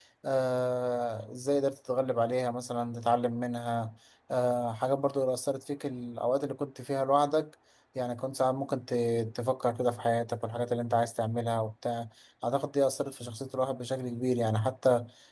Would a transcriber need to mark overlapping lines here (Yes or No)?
No